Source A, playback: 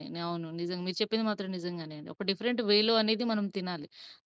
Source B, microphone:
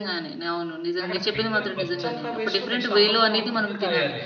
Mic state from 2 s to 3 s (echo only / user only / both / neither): both